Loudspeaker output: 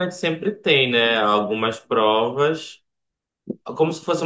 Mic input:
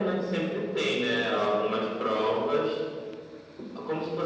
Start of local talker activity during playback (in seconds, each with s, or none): none